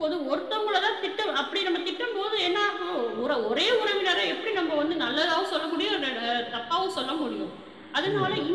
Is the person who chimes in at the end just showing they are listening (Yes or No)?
Yes